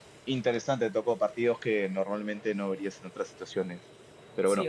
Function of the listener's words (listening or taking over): taking over